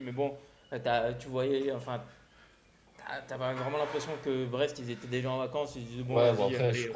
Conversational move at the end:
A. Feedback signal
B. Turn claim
B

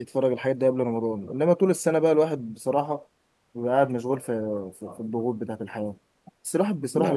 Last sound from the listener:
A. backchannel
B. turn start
A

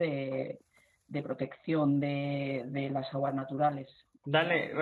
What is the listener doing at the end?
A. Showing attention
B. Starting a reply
B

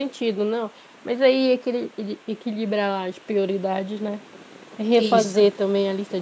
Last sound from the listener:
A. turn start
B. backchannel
B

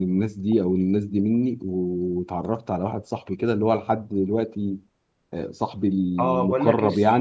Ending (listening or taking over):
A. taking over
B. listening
A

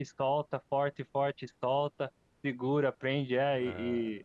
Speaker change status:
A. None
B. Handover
A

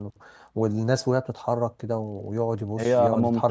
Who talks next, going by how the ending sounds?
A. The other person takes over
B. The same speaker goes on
B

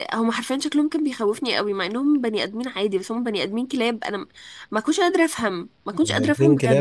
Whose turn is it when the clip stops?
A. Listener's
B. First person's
A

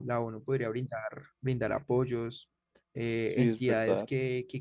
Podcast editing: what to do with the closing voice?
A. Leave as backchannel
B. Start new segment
A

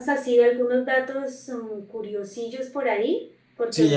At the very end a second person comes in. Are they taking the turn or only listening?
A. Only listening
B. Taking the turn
B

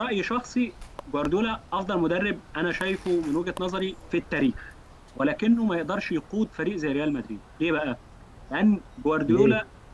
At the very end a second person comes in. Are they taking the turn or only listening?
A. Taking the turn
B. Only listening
B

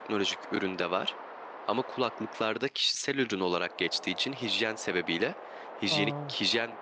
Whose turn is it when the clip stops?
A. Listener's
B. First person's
B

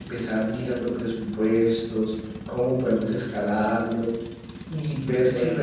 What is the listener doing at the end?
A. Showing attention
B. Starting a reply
A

